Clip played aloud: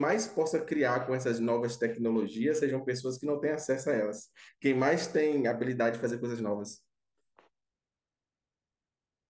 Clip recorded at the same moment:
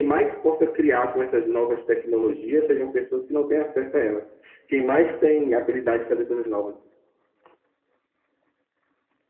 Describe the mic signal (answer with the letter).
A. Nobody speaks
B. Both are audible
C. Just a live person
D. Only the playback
D